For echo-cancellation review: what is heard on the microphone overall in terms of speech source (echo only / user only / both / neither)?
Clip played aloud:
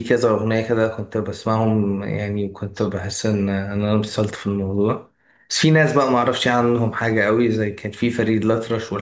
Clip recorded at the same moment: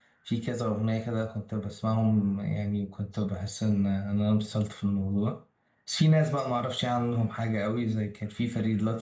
echo only